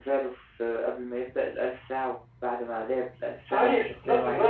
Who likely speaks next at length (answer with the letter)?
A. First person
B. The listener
B